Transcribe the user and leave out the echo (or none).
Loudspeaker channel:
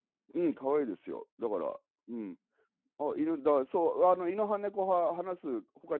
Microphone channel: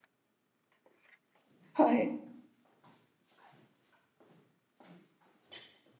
はい。